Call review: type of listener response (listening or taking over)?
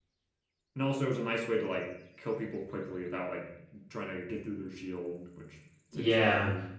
taking over